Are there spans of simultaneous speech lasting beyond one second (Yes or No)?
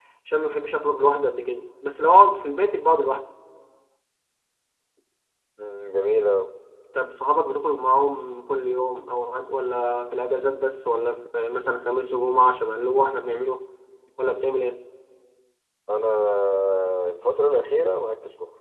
No